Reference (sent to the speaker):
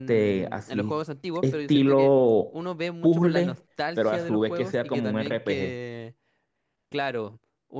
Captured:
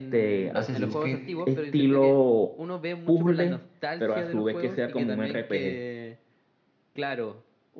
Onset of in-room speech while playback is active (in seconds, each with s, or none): 0.5 s